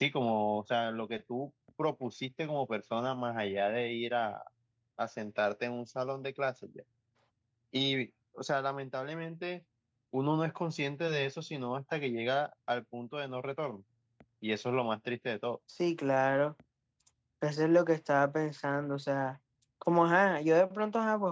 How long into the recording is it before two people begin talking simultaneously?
none

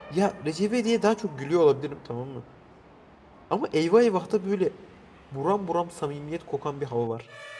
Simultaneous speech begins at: none

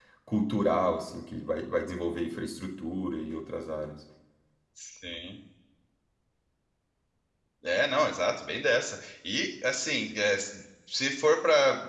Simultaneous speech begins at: none

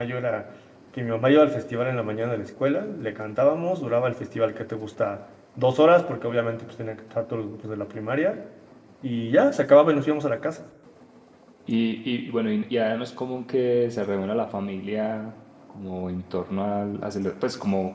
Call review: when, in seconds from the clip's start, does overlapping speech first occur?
none

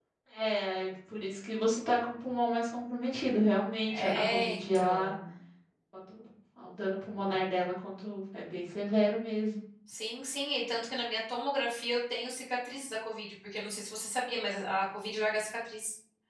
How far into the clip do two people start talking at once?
3.8 s

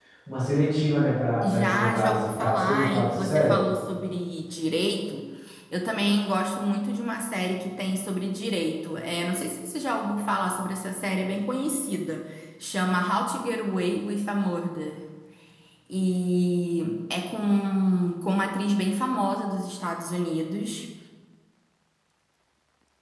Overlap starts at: 1.4 s

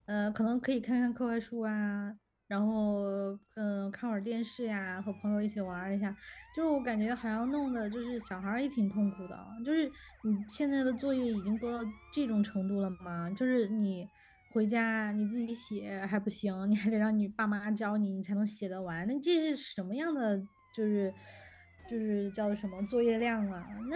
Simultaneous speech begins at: none

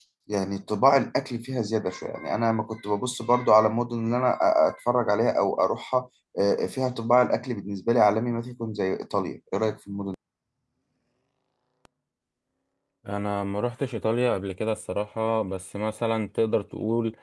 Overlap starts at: none

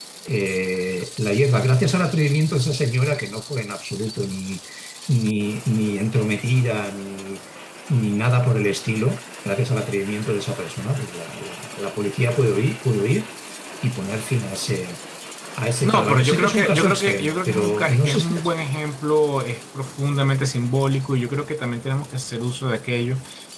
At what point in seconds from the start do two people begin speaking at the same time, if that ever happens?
15.8 s

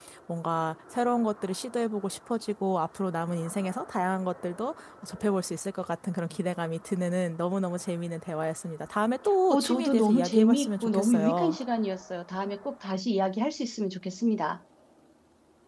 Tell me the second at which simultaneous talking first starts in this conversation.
9.5 s

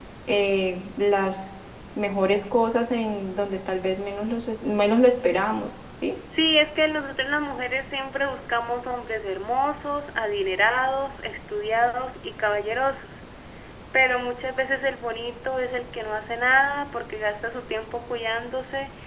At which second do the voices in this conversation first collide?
none

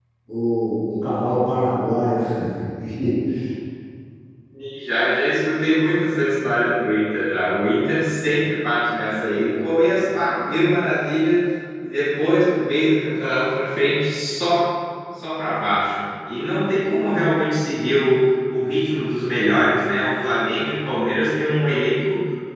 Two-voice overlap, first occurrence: none

